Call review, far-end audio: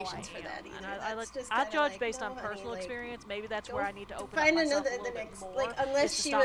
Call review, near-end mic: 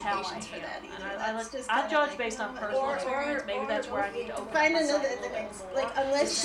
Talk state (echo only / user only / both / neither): both